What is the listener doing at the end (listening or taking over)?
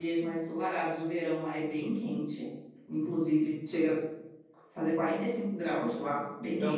taking over